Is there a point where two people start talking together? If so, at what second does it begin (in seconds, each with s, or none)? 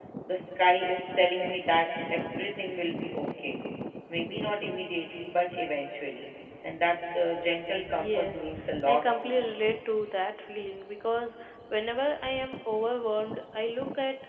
7.9 s